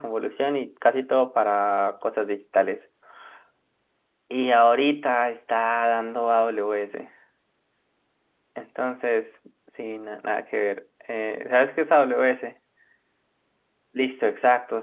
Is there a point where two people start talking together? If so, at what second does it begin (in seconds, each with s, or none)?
none